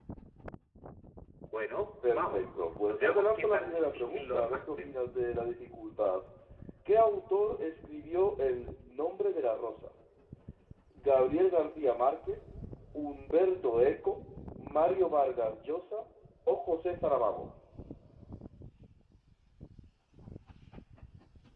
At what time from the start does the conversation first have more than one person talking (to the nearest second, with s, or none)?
2 s